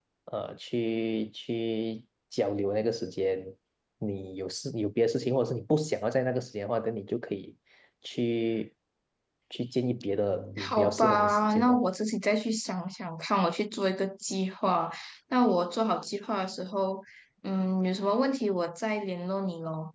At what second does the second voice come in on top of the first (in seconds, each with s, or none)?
10.6 s